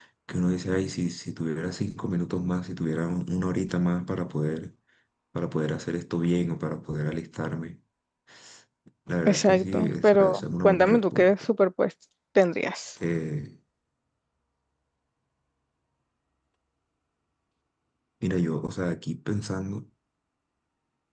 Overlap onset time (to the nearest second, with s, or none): 9 s